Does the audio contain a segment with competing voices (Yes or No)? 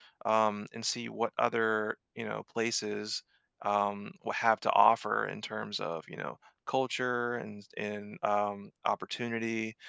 No